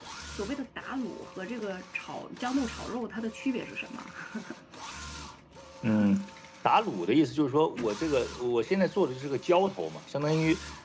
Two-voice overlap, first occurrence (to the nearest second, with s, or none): none